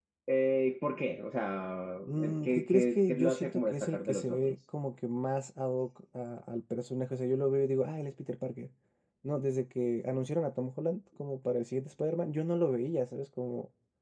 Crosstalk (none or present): present